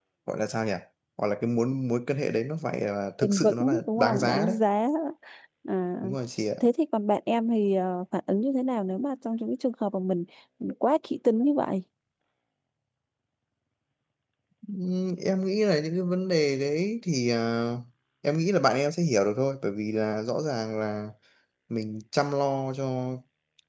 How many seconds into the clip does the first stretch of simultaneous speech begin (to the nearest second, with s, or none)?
3 s